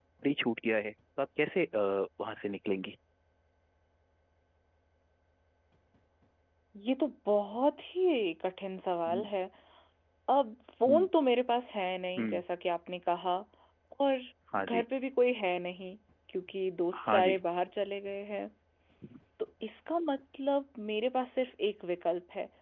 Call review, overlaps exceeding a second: none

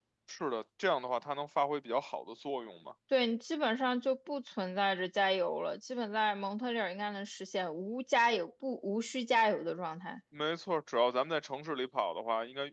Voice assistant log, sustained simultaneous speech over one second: none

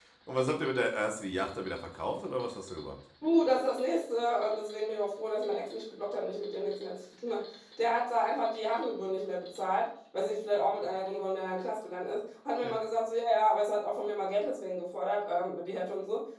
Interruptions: none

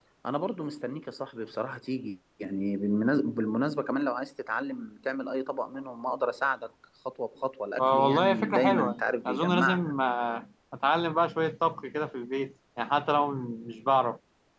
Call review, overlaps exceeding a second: present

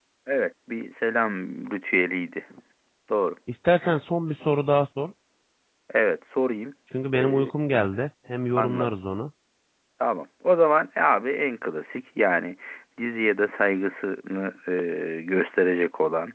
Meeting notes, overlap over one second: none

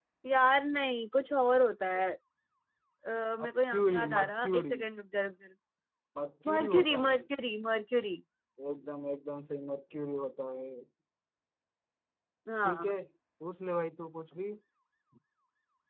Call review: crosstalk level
present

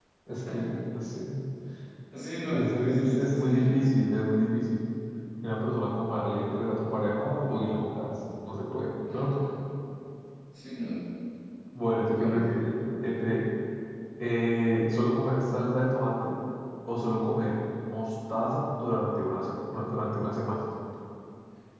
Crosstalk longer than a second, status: present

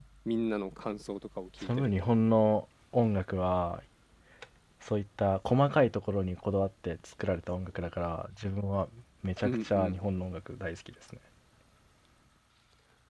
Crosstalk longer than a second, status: none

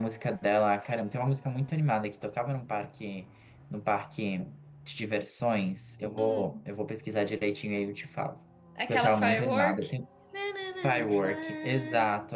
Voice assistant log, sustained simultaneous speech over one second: present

